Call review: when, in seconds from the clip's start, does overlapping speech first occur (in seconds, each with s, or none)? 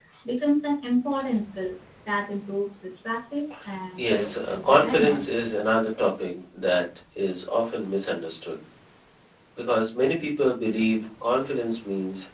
4.0 s